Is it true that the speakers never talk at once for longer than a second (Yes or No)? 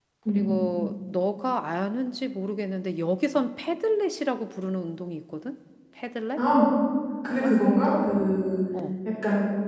Yes